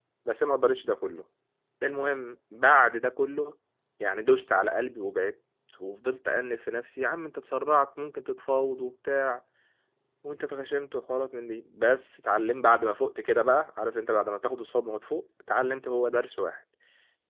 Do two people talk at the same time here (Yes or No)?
No